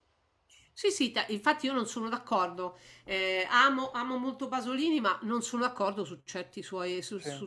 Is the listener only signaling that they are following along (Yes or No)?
Yes